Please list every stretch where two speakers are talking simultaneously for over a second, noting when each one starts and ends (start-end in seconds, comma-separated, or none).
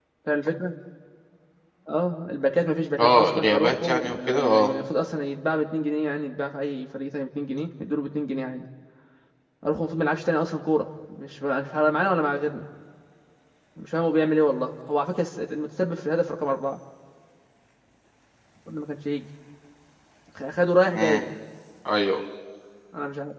3.0-4.7